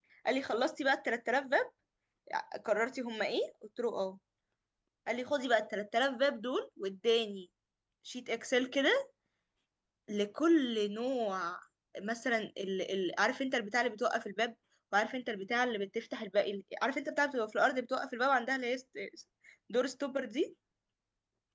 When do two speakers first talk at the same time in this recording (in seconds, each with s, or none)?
none